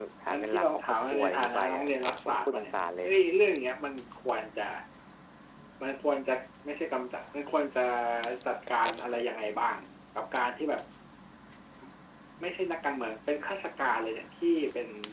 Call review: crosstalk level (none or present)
present